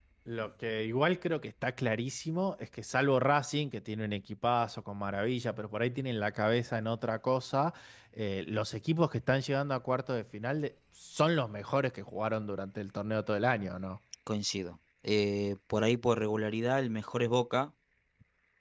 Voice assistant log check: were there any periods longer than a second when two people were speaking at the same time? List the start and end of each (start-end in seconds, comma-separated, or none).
none